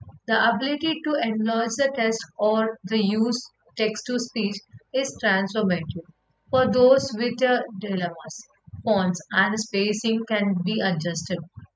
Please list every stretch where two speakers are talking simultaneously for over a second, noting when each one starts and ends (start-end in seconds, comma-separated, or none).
none